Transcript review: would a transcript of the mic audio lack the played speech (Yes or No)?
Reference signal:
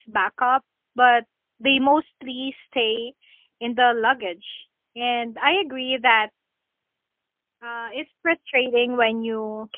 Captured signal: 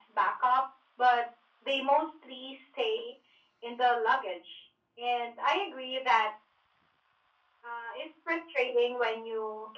No